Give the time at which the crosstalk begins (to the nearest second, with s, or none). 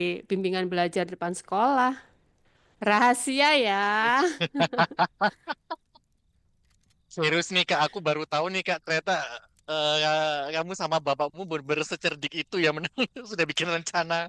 none